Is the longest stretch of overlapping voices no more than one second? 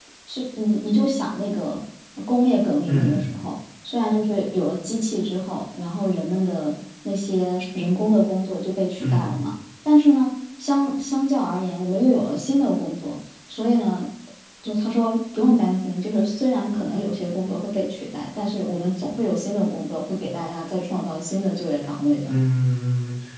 Yes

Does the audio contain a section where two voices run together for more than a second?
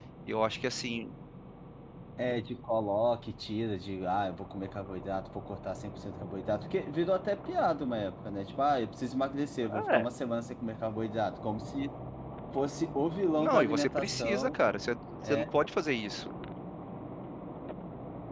Yes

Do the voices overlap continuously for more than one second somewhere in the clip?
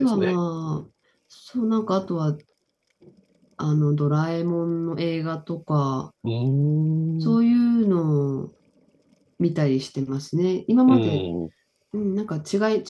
No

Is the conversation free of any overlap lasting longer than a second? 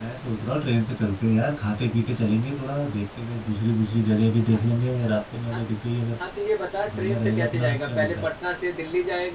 No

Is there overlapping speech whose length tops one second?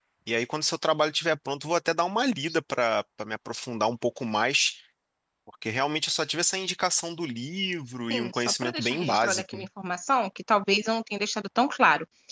Yes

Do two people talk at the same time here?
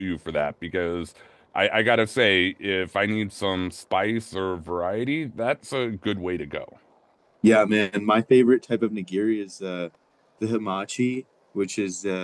No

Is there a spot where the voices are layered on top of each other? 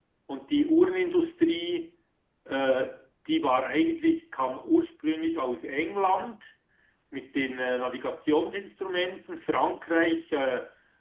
No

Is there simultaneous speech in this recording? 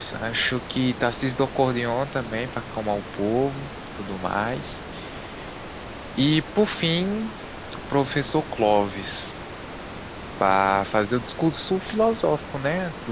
No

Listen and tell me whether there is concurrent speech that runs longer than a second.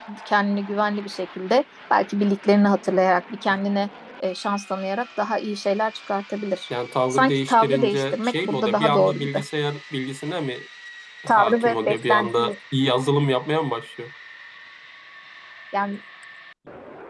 Yes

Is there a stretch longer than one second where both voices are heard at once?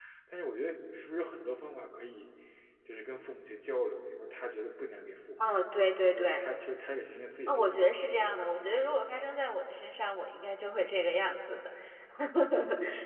No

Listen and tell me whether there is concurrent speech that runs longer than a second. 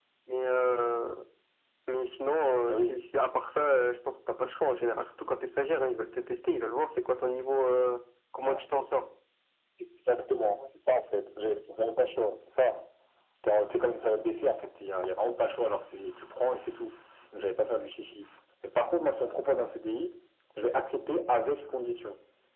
No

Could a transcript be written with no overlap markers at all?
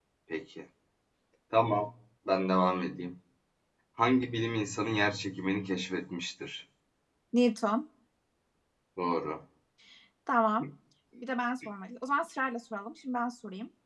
Yes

